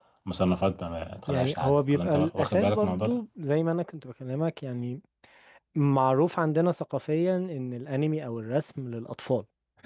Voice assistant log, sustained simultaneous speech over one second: present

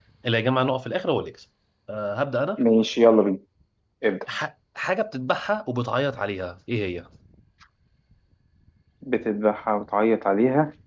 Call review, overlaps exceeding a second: none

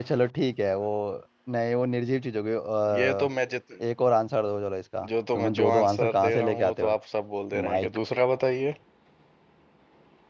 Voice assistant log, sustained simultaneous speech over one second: present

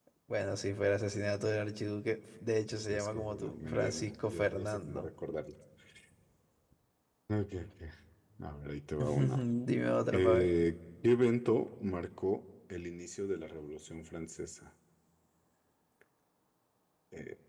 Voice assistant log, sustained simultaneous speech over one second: present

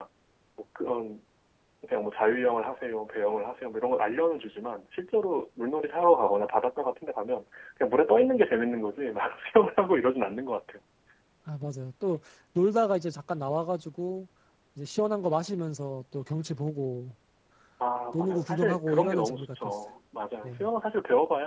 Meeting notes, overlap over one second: present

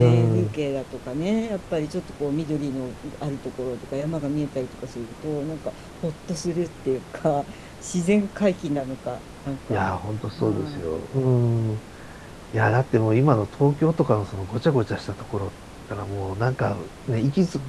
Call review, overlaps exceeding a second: none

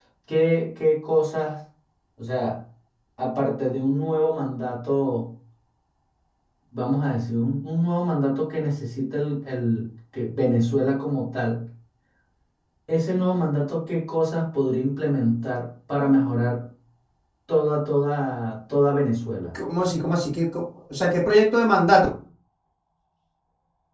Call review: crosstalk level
none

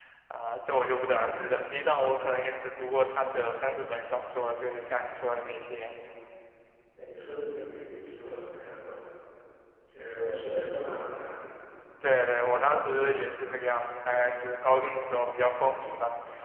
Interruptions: none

